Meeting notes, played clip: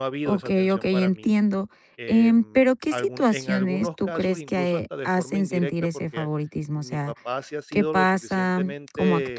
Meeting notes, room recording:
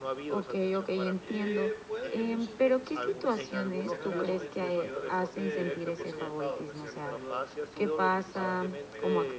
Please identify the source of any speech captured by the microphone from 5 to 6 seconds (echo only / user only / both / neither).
both